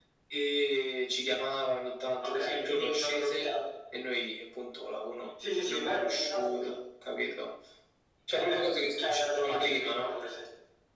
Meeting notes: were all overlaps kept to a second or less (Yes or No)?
No